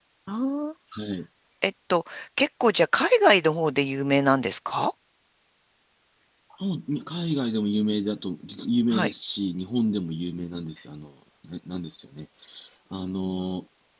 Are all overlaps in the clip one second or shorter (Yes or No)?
Yes